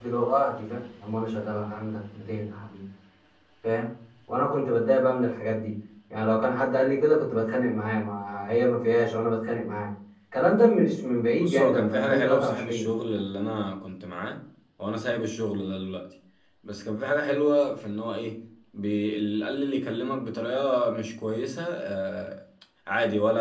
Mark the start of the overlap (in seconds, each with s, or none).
11.4 s